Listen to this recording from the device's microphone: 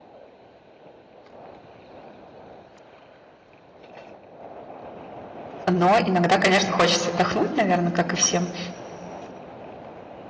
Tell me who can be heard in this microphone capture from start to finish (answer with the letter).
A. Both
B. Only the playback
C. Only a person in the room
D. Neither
C